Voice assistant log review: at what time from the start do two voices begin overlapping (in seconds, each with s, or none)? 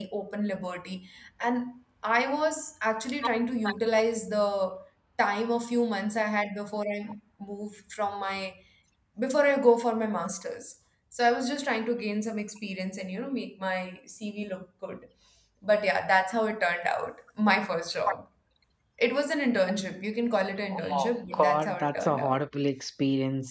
20.7 s